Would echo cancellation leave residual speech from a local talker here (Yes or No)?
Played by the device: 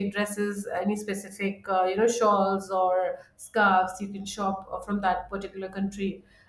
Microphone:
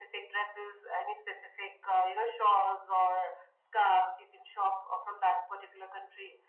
No